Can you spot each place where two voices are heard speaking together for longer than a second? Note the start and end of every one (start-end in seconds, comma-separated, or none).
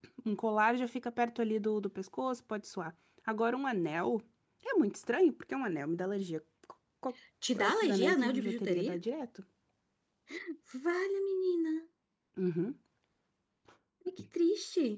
7.6-9.0